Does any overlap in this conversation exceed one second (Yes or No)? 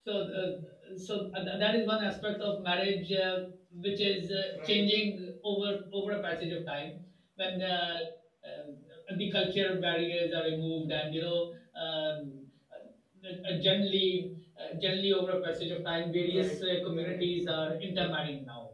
Yes